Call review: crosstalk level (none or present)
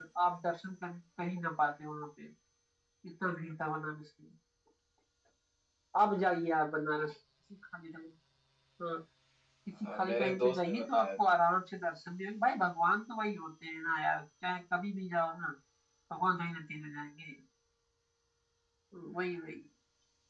present